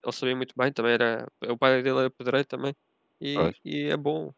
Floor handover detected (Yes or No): No